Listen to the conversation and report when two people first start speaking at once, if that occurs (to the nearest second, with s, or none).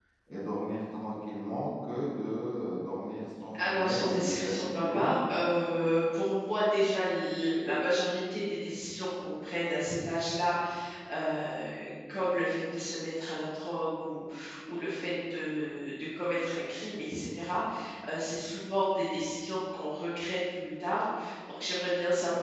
4 s